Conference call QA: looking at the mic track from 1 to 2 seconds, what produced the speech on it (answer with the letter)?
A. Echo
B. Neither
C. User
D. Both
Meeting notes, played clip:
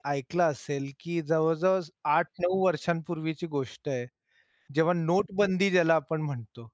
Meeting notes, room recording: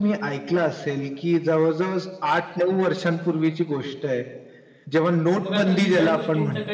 A